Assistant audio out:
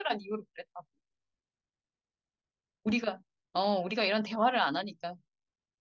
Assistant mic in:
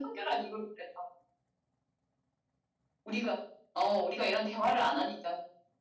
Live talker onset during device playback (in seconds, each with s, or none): none